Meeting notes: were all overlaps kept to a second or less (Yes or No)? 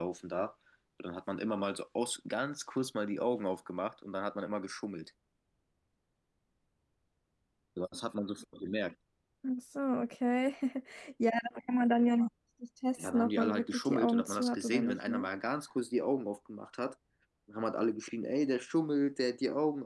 No